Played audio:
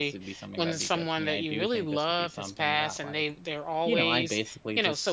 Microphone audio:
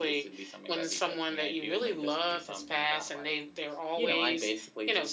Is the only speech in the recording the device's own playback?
Yes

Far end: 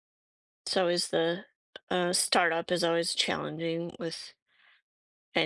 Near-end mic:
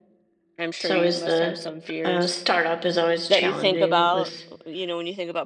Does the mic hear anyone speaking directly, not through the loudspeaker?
Yes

